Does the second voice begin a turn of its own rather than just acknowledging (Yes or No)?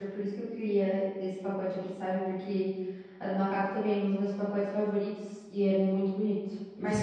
Yes